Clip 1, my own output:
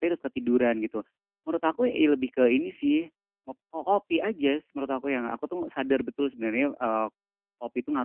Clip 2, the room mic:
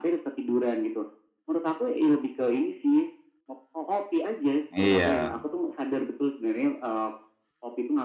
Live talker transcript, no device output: Iya.

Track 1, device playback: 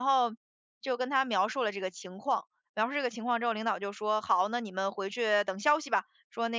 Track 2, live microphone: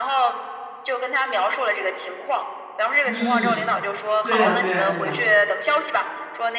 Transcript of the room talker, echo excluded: 嗯，对呀，对呀，对呀。

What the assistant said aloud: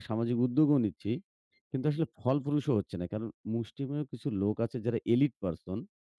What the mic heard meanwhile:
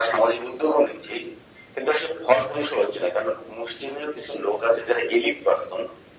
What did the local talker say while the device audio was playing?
none

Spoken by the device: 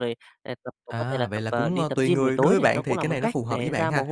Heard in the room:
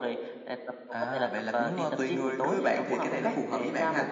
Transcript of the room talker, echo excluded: none

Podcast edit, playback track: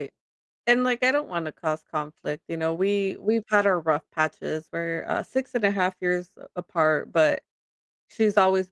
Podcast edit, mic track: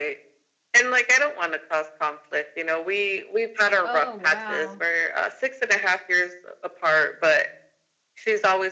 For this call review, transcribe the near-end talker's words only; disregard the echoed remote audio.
Oh, wow.

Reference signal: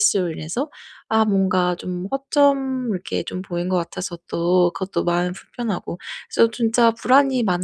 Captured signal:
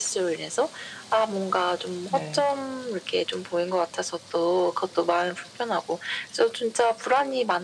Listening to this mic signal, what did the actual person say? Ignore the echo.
네.

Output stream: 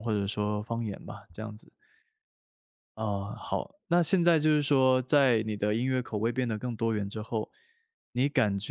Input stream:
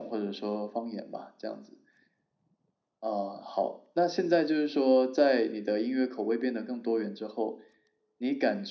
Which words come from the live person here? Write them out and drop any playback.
none

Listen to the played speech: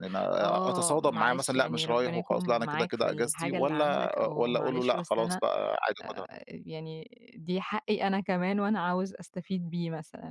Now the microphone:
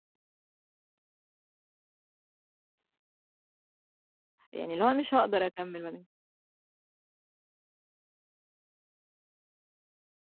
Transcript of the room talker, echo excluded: يعني اللي هو أنا مش هاقدر أكمّل ما دام

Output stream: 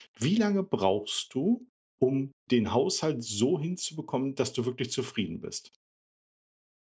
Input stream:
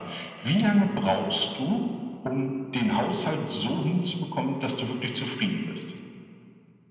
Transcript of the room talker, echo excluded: none

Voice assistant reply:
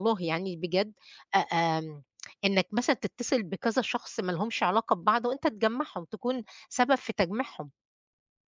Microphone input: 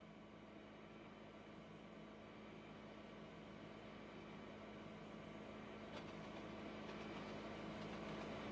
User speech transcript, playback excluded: none

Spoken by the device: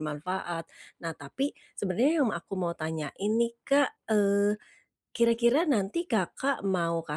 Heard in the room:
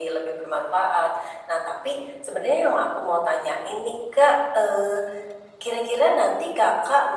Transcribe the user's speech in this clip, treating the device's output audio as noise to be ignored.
none

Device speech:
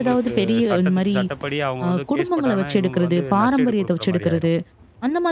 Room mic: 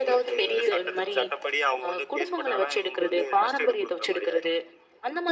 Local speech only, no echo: none

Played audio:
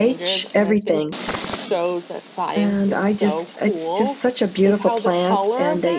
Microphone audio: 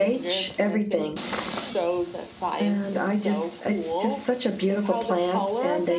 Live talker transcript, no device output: none

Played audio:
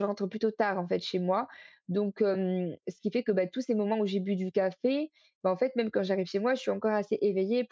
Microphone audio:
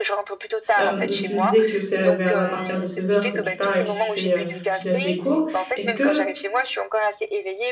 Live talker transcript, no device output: Hem, tu me disais que c'est, heu, vers à partir de seize heures que tu pars et que tu fais, heu, tu donnes des cours. Est-ce que,

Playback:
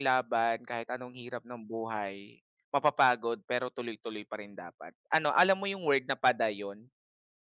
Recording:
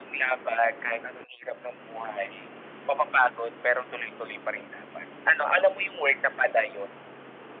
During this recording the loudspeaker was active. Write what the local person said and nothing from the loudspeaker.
none

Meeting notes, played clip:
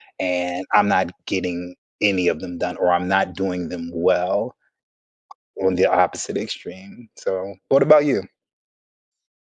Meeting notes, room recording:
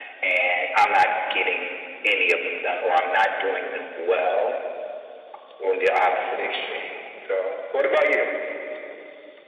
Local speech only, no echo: none

